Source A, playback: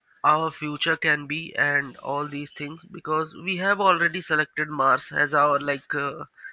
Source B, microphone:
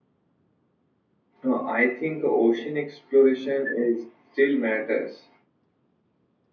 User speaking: Yes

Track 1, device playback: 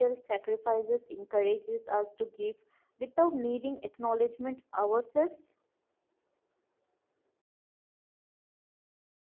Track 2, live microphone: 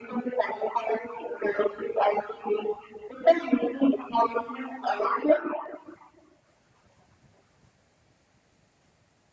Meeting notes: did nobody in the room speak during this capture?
Yes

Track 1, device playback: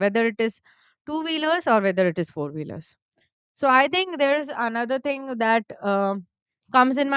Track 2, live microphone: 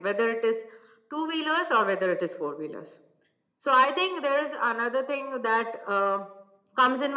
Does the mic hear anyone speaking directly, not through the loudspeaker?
No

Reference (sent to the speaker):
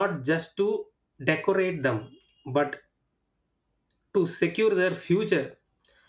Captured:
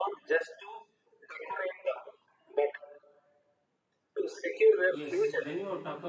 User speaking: Yes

